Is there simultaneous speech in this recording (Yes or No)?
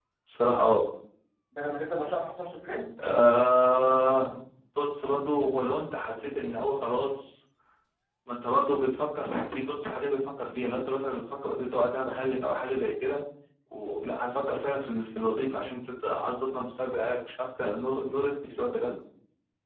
No